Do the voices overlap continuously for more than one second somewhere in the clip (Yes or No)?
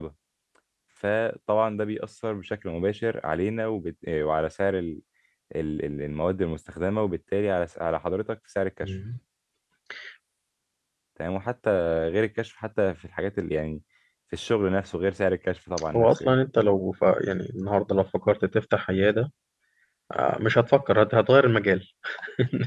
No